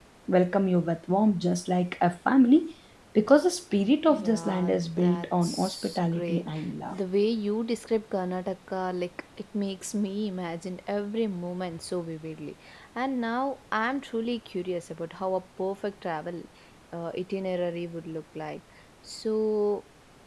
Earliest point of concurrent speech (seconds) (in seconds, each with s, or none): 4.1 s